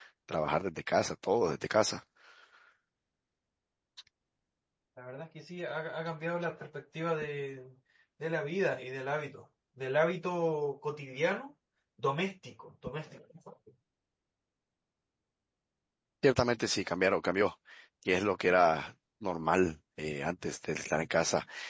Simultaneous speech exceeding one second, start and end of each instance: none

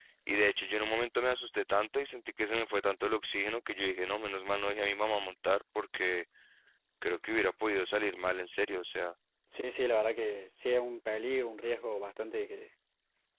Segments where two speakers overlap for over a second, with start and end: none

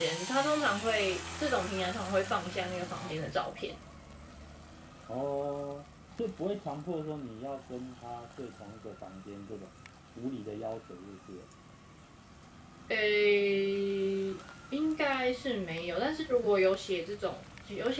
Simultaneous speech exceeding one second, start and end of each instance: none

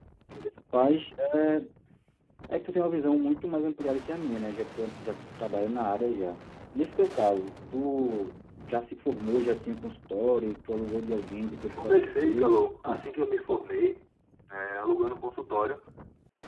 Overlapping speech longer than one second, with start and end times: 11.6-13.0

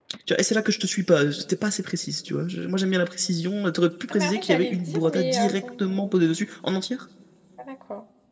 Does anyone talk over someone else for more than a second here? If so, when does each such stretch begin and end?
4.1-6.2

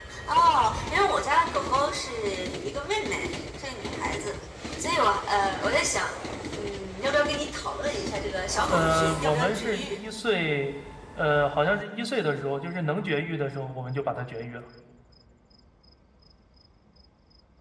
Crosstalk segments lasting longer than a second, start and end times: 8.7-10.0

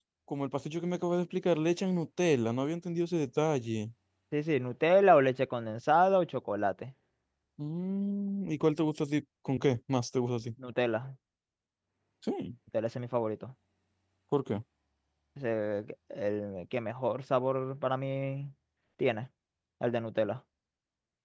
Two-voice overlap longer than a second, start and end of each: none

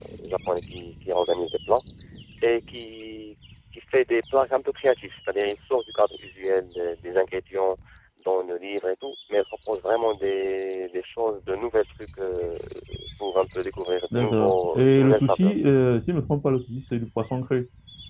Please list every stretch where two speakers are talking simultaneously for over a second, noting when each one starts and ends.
14.2-15.5

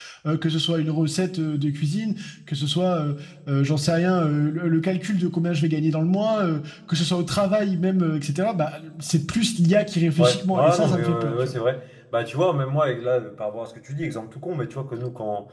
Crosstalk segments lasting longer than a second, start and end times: 10.2-11.5

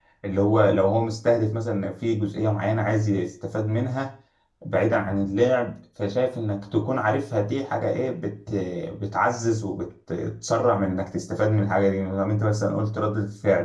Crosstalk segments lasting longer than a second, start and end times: none

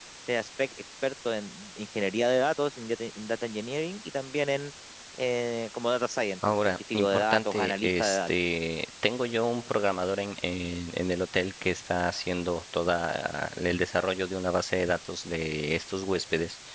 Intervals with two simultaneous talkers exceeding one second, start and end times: 6.7-8.3

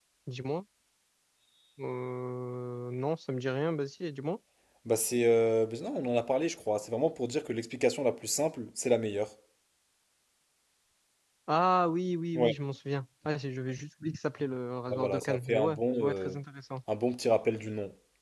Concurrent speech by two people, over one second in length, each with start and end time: 14.9-16.4

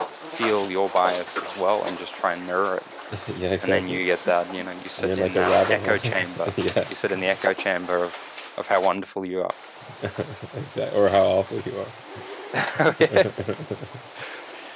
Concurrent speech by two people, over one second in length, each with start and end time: 5.0-6.5

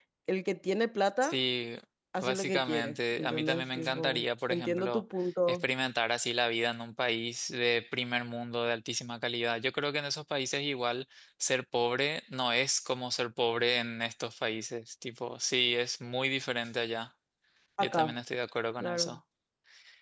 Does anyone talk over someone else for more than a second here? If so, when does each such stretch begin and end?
2.2-5.0

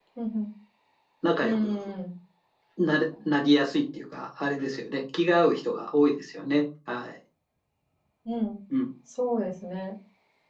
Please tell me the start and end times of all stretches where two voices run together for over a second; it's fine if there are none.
none

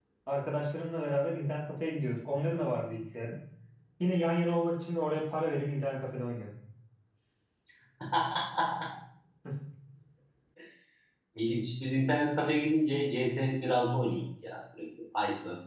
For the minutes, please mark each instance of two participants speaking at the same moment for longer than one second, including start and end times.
none

